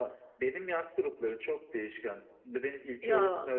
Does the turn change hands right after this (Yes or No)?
No